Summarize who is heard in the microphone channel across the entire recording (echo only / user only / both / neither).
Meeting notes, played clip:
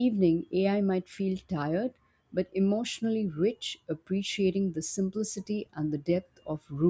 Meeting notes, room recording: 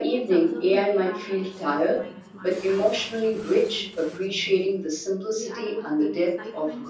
both